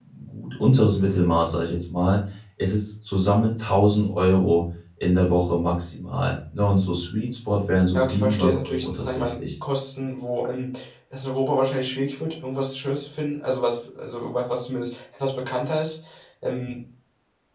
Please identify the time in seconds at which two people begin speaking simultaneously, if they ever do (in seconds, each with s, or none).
7.9 s